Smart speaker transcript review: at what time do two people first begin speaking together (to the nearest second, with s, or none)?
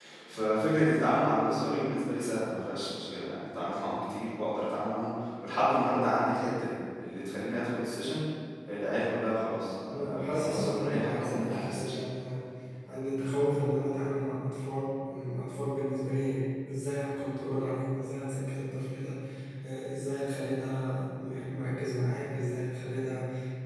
10 s